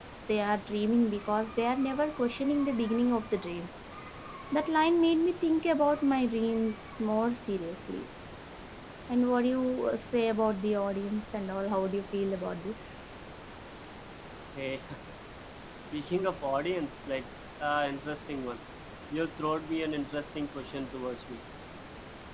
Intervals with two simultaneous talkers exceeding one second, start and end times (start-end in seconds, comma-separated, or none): none